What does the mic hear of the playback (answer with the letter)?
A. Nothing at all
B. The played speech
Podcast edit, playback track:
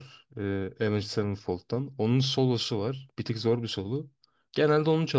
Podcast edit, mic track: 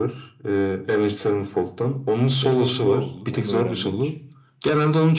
B